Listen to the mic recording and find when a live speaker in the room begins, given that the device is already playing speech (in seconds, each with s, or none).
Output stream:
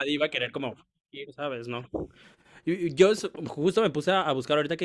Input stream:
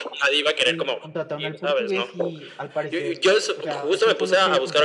0.6 s